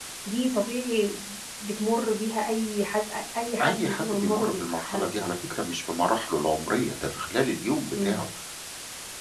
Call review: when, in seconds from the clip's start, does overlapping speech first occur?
3.6 s

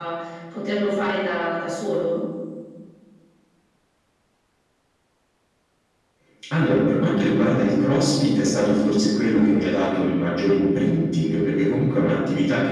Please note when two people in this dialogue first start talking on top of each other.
none

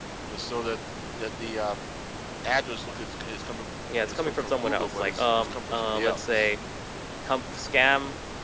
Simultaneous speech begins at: 3.9 s

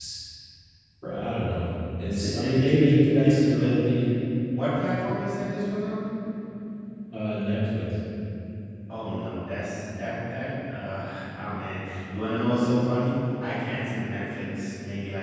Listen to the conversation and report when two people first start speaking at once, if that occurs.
2.1 s

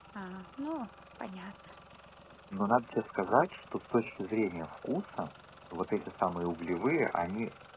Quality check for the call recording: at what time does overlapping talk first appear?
none

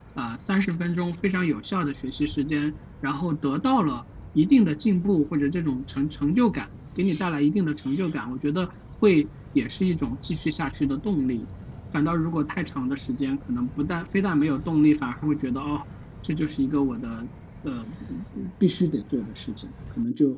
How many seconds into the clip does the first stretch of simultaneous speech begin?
none

